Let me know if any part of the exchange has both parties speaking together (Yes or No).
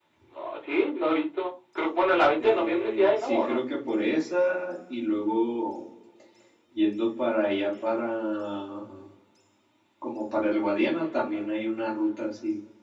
Yes